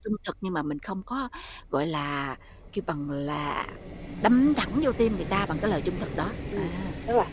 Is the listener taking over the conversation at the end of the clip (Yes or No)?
Yes